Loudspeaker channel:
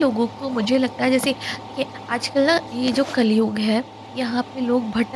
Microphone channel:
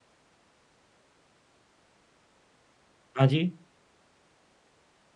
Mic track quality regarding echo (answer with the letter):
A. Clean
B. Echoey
A